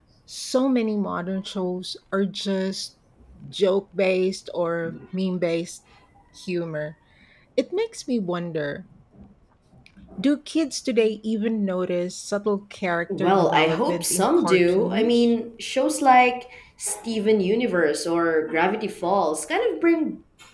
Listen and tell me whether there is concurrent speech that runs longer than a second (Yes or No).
Yes